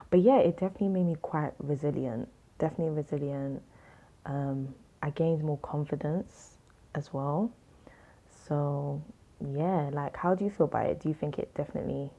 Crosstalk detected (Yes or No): No